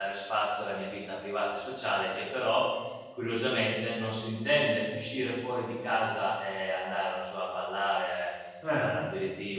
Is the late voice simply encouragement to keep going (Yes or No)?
Yes